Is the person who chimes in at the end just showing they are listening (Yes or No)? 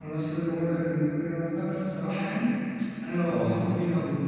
Yes